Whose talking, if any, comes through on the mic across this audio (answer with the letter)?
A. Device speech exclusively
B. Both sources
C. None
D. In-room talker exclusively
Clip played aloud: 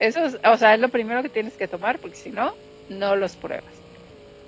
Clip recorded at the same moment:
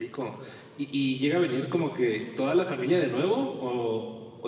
D